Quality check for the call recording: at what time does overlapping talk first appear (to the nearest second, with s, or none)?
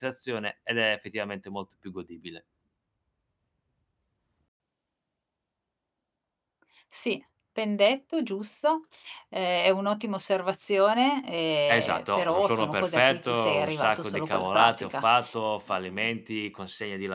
12 s